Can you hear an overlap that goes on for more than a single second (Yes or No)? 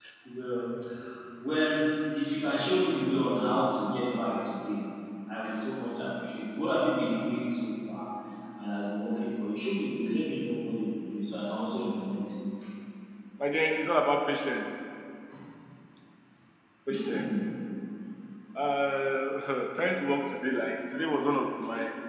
No